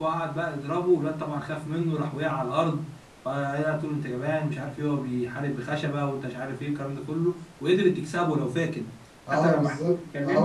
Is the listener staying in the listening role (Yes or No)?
No